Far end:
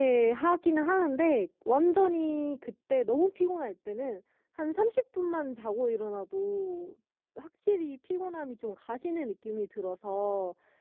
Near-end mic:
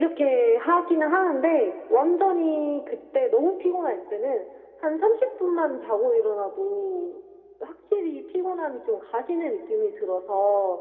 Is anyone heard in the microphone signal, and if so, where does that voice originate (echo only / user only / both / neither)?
echo only